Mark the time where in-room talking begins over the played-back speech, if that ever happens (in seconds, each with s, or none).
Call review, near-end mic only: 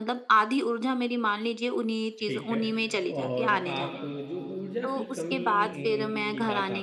2.2 s